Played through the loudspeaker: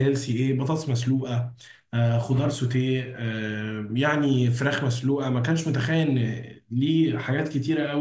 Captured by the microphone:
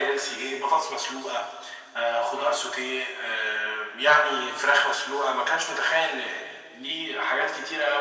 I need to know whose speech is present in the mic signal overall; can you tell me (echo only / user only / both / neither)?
echo only